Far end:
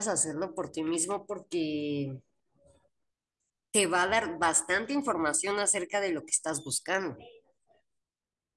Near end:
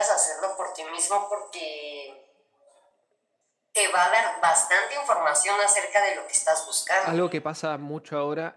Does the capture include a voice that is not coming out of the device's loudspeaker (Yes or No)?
Yes